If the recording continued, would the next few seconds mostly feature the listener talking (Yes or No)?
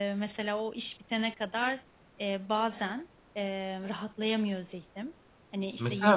Yes